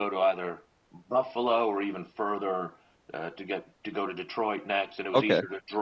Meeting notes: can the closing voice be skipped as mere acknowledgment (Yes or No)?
Yes